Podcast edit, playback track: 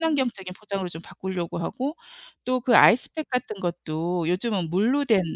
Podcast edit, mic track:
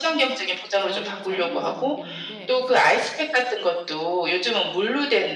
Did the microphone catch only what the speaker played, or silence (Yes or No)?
No